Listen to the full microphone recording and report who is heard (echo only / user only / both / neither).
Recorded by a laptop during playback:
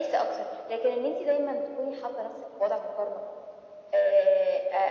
echo only